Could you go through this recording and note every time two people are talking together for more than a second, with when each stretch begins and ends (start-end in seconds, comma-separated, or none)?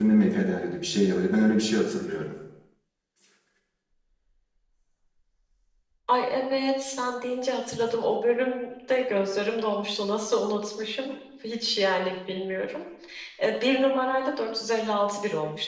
none